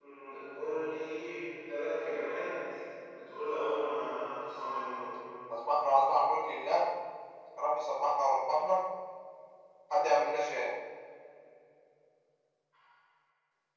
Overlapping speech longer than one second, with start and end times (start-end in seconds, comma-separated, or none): none